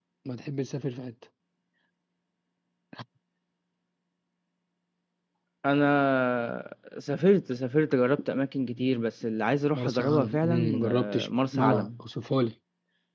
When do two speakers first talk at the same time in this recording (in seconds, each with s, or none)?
9.7 s